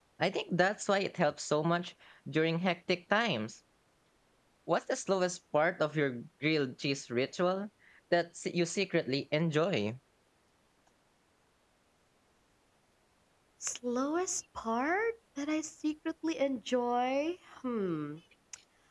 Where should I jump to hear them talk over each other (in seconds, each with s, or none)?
none